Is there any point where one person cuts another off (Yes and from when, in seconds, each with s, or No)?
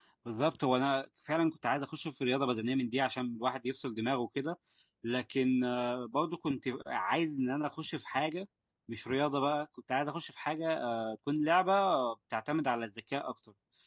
No